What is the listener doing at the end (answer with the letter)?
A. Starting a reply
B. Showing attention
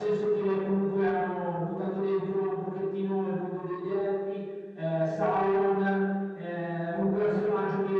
B